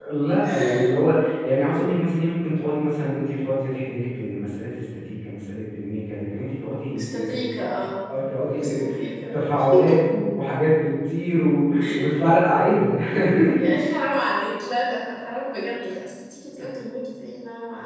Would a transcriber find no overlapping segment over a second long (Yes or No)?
Yes